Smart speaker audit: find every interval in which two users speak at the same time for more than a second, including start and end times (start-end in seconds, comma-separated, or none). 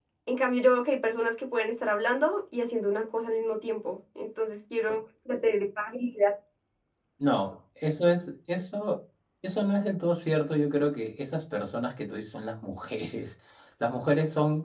none